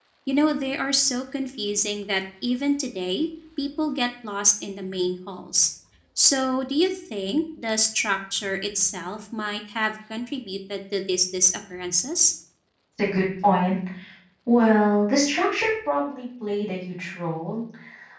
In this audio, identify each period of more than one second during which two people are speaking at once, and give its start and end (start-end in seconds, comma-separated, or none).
none